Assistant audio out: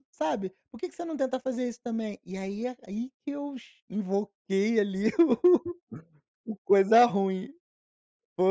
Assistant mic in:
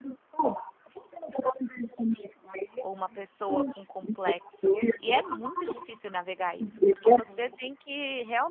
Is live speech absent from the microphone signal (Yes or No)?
No